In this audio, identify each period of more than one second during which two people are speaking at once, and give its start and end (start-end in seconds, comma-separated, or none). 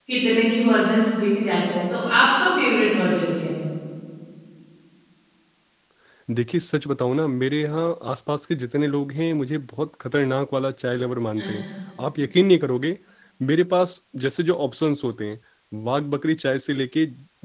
none